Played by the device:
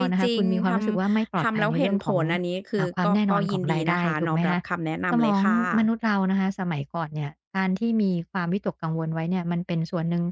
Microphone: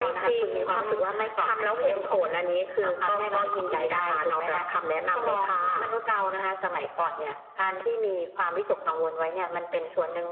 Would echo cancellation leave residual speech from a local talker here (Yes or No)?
No